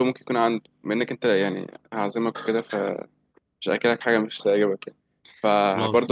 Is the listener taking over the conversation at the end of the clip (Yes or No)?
No